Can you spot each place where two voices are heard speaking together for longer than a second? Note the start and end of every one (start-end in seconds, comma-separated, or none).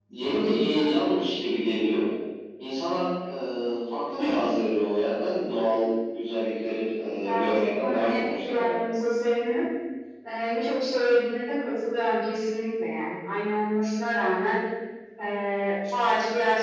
7.3-8.7